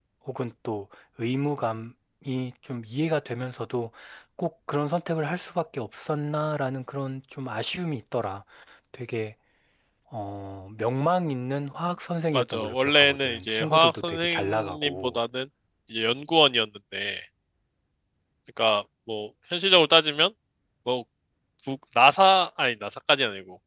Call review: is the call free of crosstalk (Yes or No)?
No